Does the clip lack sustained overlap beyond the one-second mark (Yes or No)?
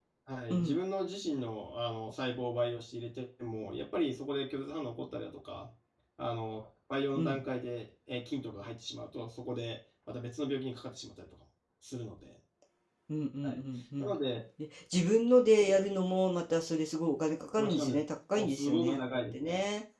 No